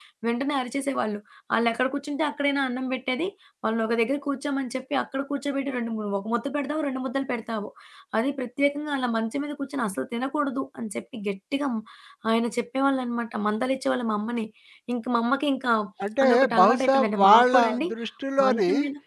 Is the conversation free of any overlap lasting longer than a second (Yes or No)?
No